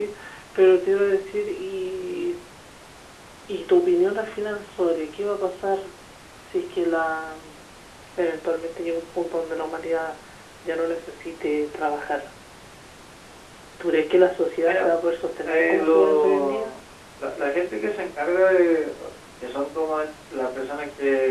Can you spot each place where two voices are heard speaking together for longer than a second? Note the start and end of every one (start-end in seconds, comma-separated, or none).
15.4-16.7